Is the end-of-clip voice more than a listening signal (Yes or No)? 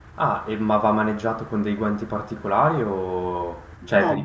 Yes